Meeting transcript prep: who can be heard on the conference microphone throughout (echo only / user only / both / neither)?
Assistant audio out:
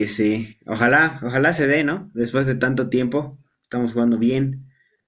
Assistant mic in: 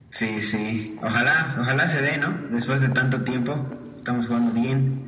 echo only